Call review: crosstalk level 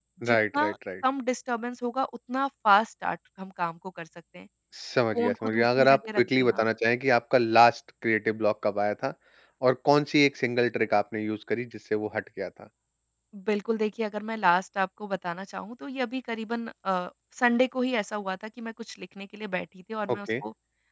present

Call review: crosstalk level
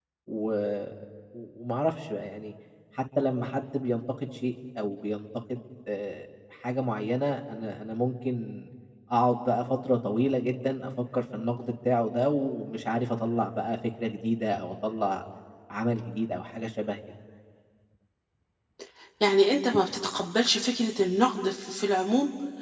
none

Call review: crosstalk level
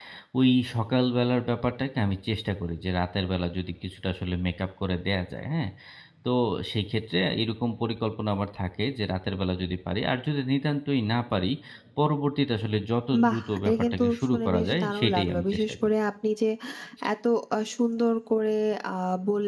present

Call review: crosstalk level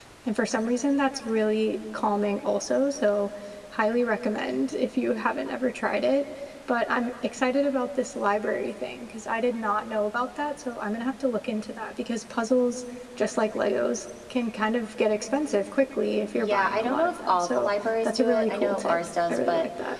present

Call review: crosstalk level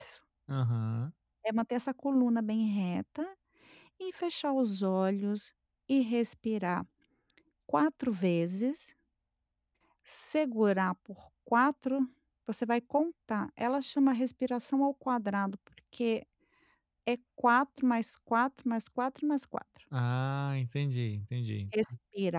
none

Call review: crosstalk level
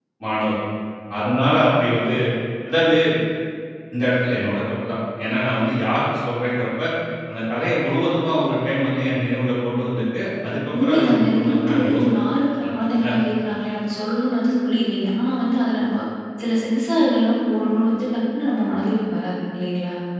present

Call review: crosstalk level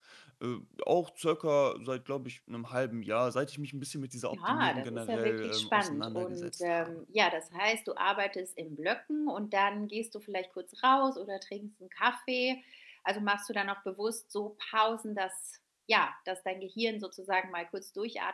present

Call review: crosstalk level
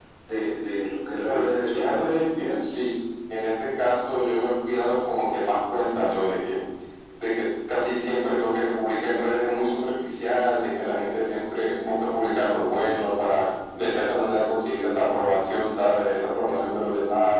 present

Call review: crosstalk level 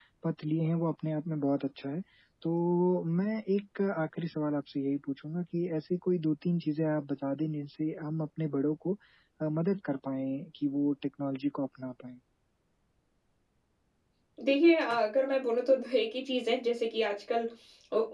none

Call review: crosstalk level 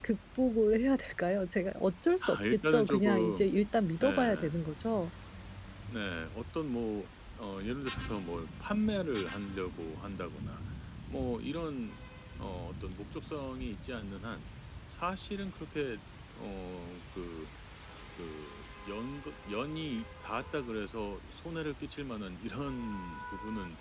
present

